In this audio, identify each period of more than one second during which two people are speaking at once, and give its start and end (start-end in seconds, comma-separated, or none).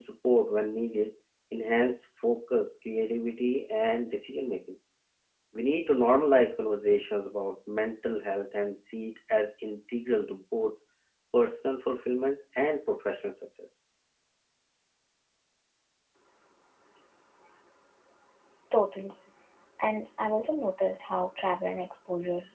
none